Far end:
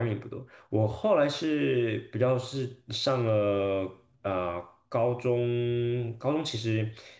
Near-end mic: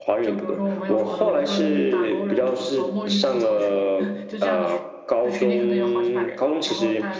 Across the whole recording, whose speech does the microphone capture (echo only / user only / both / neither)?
both